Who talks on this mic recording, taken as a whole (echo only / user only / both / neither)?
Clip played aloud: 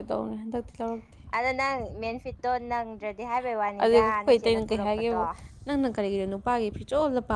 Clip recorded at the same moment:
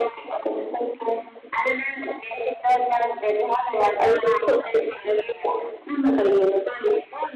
echo only